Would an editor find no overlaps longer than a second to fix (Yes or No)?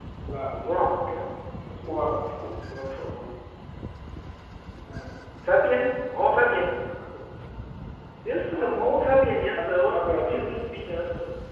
No